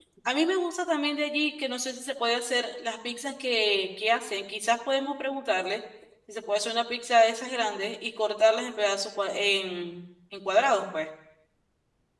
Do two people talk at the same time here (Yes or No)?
No